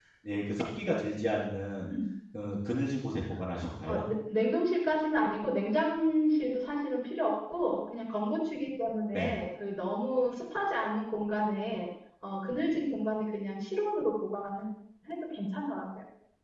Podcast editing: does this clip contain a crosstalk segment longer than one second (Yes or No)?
No